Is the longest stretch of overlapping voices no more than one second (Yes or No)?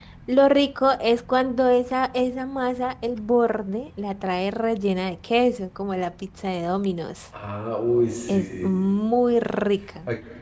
Yes